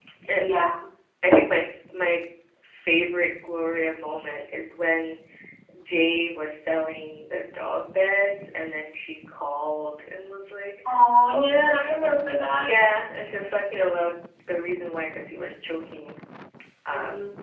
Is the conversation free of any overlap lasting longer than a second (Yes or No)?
No